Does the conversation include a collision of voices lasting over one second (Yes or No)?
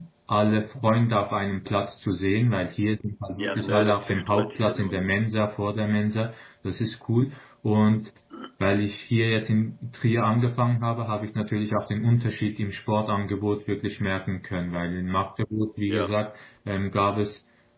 Yes